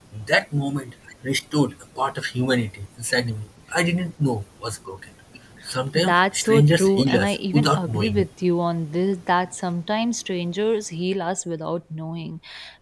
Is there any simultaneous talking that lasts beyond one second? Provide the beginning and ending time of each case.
6.0-8.2

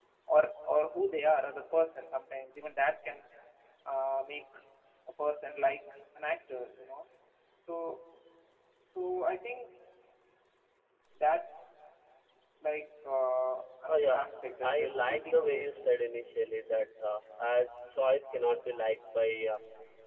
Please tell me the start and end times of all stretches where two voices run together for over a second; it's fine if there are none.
14.6-15.9

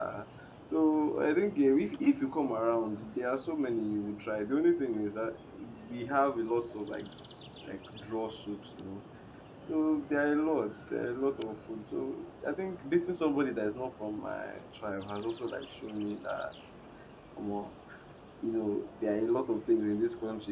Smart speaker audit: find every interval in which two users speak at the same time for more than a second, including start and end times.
none

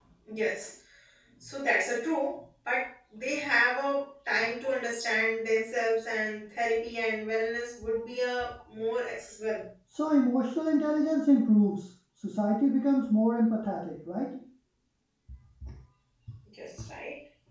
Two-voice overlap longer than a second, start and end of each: none

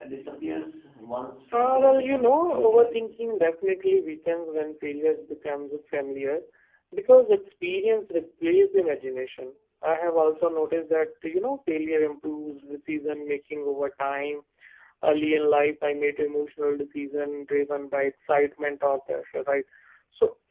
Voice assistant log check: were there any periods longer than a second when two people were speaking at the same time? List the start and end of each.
1.5-2.9

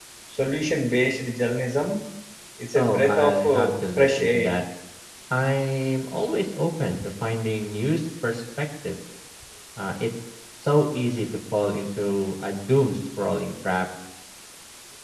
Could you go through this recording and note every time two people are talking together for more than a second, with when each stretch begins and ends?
2.8-4.5

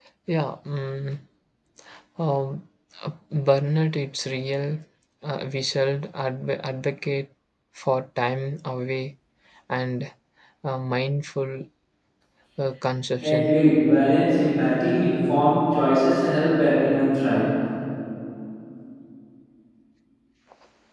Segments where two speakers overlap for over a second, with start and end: none

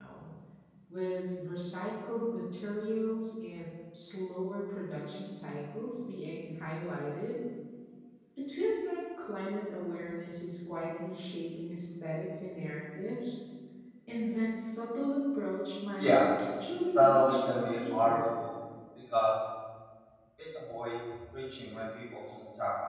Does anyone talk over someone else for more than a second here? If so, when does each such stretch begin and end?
16.9-18.2

